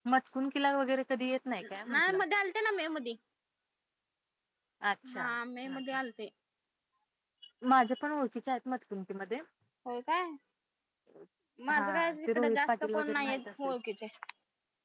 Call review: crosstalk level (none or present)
present